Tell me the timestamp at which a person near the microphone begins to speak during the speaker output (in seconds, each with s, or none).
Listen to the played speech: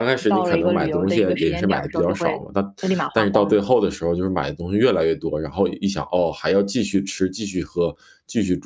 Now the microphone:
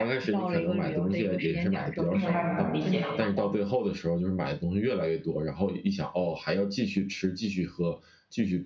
2.1 s